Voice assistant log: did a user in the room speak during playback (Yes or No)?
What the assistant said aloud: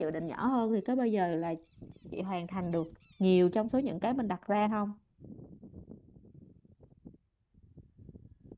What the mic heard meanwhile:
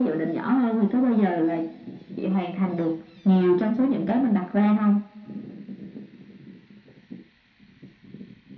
No